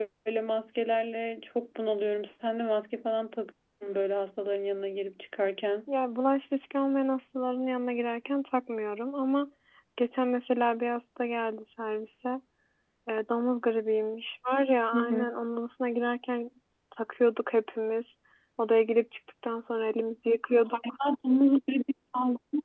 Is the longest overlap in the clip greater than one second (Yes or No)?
No